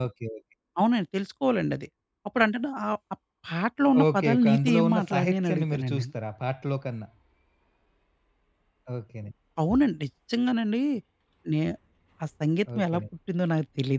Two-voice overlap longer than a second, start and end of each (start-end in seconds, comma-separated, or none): 4.1-6.0